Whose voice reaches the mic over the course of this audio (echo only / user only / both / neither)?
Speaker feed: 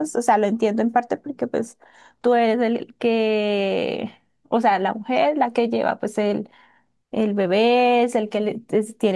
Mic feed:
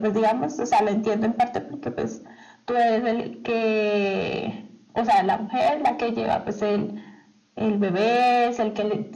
echo only